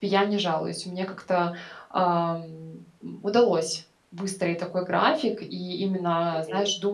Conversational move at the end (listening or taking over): listening